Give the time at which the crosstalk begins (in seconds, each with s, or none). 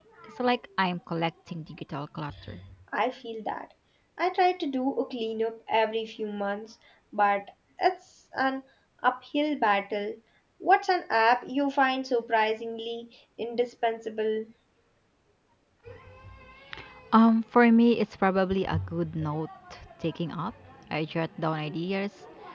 none